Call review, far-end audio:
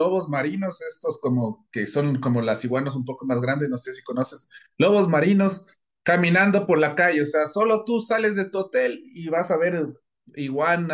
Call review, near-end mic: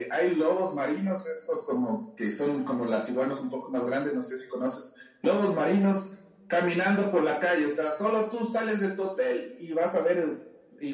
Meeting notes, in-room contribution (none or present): none